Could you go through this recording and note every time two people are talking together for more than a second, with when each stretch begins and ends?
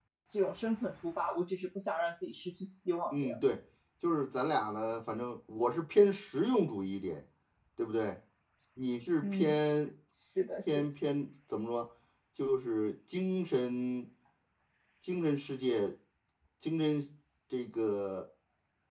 none

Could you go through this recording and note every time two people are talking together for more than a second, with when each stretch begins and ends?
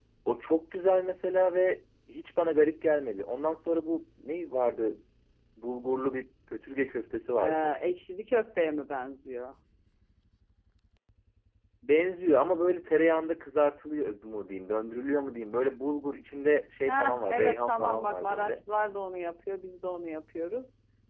16.9-18.6

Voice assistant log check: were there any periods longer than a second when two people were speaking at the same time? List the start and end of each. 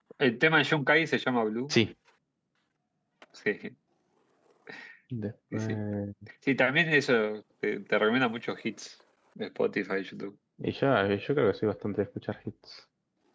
none

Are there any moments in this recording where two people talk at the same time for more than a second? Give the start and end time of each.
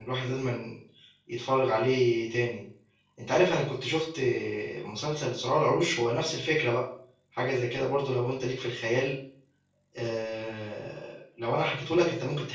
none

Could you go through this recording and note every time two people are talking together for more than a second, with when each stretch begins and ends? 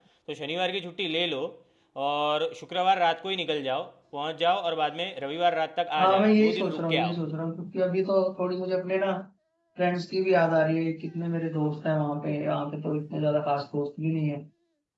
6.0-7.2

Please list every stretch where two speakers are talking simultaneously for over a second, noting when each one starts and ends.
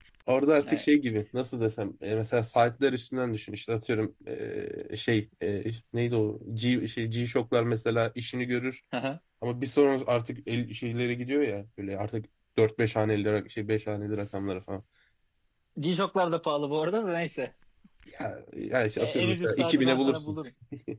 19.0-20.4

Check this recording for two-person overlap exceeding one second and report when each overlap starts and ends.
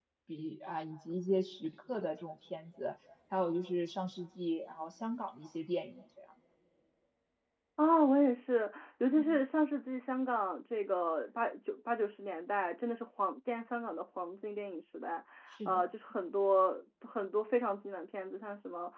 none

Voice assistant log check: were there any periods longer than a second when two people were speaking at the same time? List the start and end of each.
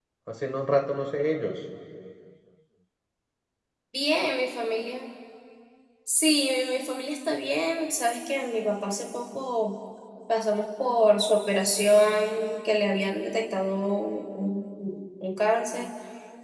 none

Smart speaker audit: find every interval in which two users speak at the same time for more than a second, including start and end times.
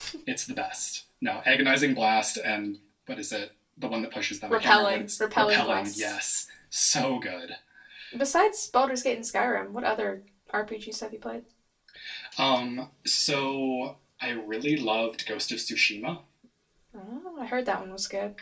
4.5-6.2

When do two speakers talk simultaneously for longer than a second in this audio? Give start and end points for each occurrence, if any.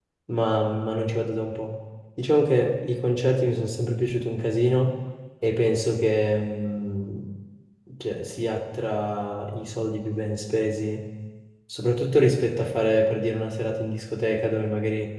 none

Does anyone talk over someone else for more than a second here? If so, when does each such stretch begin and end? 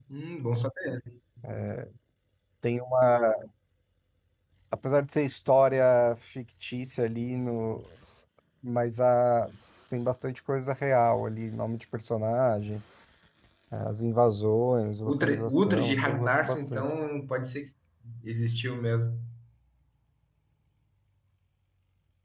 15.1-16.9

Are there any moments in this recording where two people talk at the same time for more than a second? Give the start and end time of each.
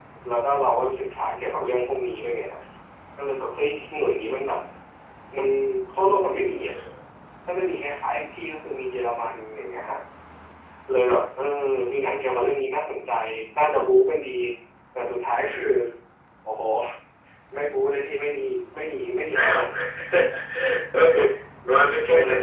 none

